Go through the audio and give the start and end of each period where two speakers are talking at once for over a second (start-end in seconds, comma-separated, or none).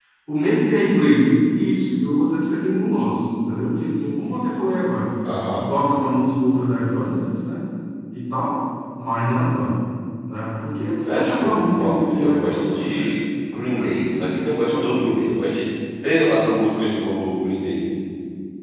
11.0-13.0, 13.7-15.0